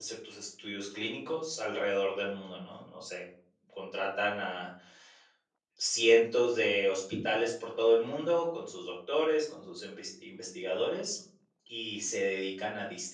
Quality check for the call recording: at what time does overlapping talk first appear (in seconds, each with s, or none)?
none